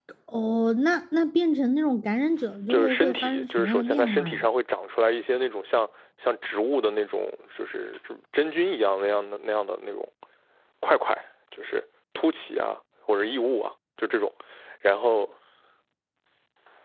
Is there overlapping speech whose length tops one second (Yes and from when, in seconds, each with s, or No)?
Yes, from 2.7 s